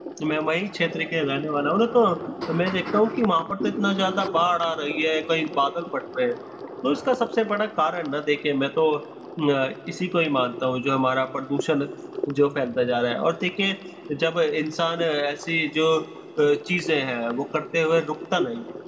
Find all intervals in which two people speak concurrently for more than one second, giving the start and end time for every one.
none

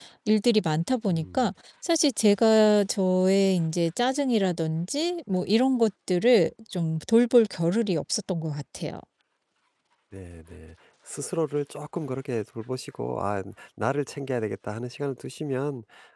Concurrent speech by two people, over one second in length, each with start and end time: none

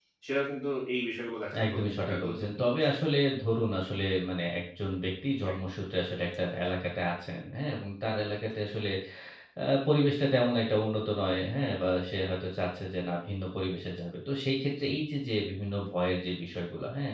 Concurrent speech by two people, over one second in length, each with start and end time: 1.7-2.9

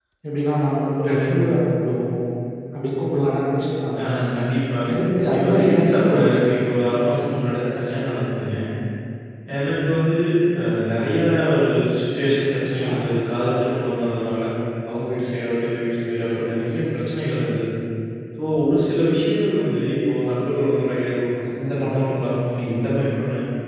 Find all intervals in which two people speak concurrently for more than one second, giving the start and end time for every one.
5.4-6.7

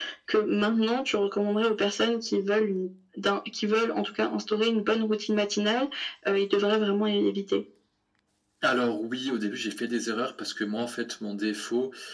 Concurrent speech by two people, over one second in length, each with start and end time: none

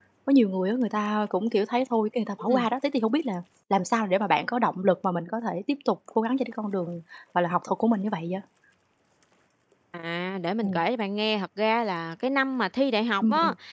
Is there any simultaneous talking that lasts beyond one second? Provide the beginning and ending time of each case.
none

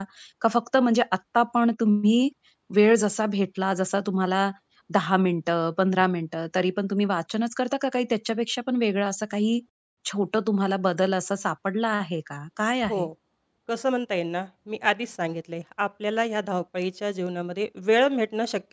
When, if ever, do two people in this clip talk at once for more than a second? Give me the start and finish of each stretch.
none

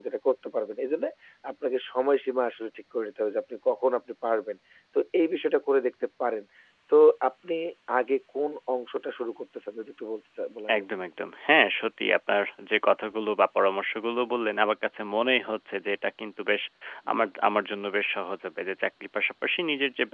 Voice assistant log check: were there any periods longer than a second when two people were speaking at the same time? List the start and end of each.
none

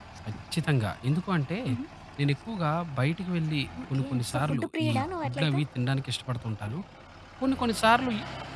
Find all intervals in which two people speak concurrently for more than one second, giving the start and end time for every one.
3.9-5.6

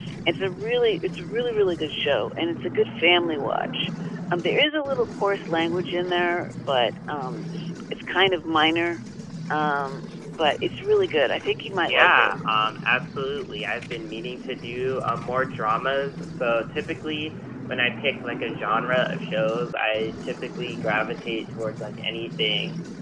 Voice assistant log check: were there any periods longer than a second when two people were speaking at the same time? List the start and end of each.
none

